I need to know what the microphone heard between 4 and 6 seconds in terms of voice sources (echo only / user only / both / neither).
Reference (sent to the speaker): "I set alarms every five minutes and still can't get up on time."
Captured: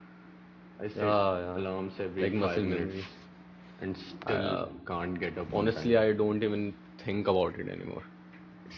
both